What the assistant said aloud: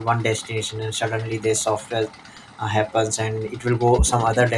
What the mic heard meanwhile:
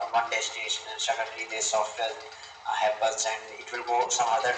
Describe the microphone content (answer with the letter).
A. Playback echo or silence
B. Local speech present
A